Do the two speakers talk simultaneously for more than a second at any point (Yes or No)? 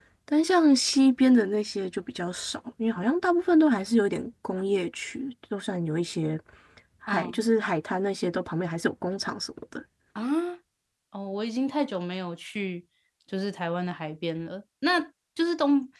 No